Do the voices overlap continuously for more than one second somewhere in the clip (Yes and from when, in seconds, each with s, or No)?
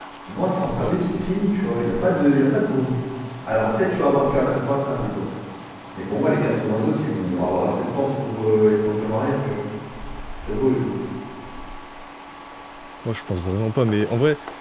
No